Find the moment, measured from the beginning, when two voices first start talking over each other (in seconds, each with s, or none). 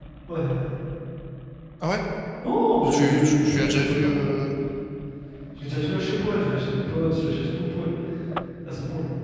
2.8 s